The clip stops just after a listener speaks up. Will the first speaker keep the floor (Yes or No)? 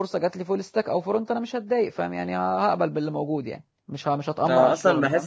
No